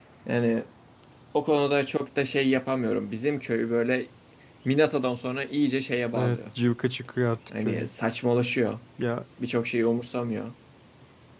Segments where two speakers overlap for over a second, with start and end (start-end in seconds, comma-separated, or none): none